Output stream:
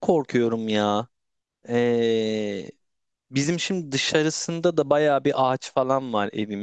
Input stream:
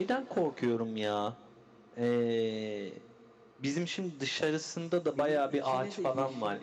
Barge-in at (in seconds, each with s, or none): 5.1 s